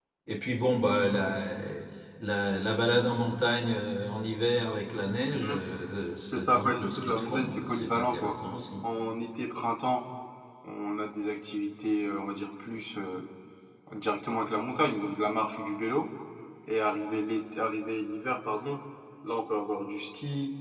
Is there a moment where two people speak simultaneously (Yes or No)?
Yes